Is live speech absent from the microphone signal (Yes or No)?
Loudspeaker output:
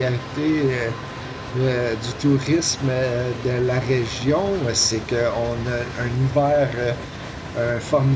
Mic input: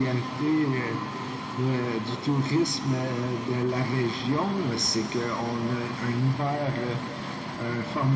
Yes